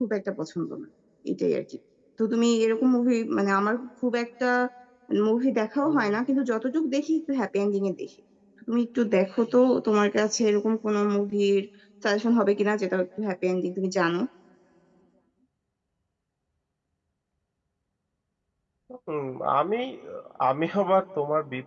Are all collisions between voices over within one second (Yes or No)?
Yes